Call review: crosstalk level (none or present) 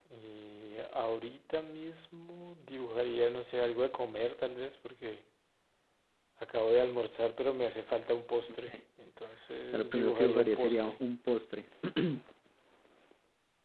present